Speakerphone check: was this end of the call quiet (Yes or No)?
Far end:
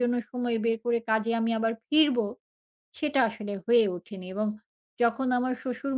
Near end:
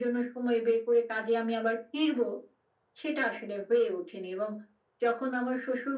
Yes